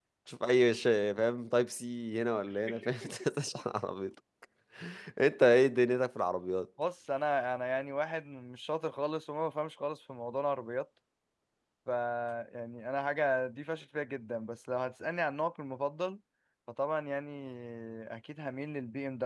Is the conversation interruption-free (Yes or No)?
Yes